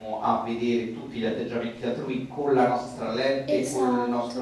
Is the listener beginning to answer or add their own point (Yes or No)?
No